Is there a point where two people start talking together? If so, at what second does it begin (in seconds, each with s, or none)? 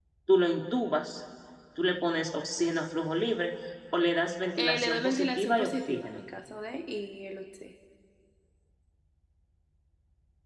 4.5 s